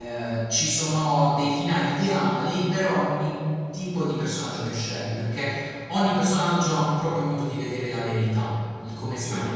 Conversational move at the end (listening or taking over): listening